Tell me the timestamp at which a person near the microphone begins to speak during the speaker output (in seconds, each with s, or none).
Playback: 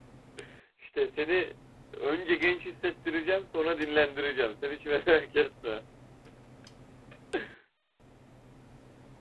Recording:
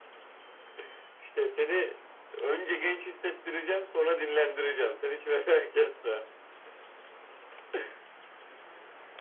none